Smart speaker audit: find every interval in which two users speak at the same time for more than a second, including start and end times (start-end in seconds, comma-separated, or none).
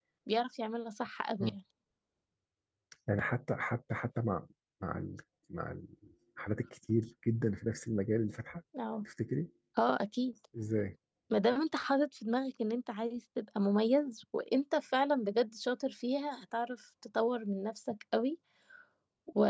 none